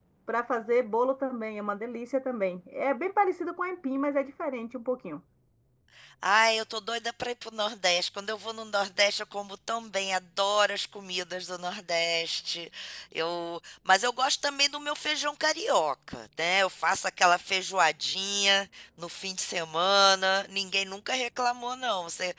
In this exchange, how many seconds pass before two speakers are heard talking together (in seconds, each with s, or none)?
none